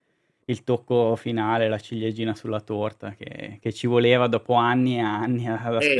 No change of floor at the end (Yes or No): No